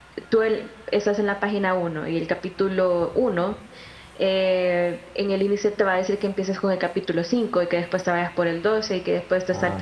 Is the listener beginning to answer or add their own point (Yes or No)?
No